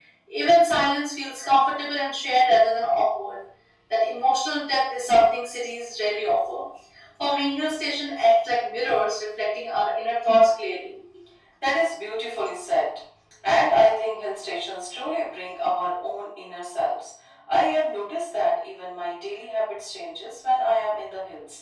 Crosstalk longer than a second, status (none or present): none